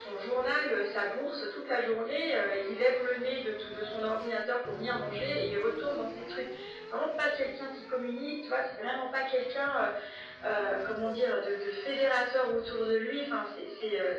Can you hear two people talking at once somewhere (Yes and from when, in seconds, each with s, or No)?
No